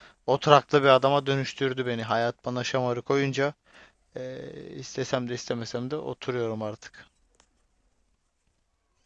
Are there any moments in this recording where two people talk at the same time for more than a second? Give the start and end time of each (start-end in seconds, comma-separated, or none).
none